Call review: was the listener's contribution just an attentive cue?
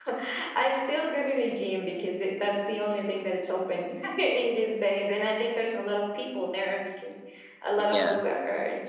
Yes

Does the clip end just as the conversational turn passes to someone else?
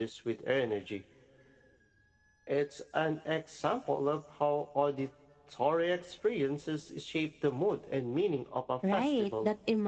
Yes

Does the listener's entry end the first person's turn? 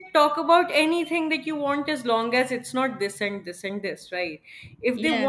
No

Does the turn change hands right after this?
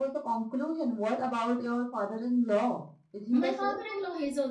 Yes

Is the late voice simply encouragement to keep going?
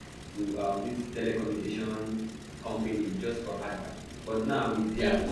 Yes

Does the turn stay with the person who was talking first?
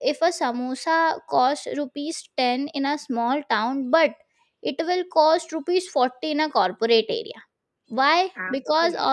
Yes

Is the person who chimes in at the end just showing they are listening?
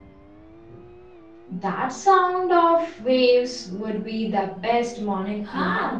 No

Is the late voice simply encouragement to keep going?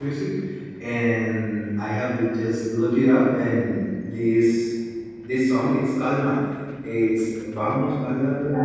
Yes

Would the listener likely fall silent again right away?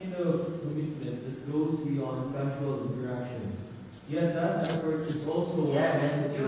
No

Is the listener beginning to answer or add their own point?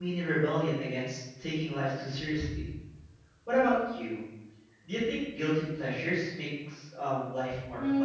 Yes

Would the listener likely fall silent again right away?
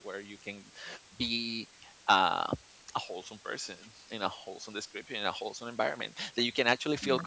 Yes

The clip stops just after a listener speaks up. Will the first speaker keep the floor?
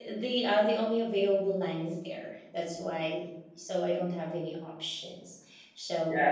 No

